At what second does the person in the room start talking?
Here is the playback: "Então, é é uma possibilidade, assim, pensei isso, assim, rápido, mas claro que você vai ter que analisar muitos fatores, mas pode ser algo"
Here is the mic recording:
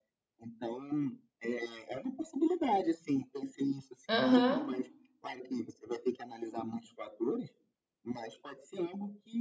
4.1 s

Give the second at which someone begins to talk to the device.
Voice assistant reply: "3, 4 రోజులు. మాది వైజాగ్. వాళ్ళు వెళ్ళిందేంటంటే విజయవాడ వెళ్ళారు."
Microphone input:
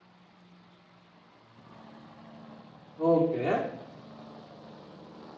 3.1 s

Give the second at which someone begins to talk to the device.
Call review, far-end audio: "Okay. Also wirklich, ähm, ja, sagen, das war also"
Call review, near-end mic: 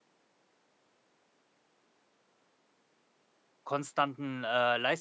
3.6 s

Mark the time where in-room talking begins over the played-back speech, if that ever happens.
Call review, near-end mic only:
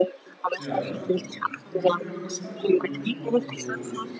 0.6 s

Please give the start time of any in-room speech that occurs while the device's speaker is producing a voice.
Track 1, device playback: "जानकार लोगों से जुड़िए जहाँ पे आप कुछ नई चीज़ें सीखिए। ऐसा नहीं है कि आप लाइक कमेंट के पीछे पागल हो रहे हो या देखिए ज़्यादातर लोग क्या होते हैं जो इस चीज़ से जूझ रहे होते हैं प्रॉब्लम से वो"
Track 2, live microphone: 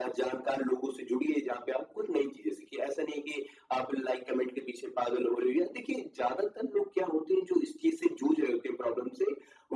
none

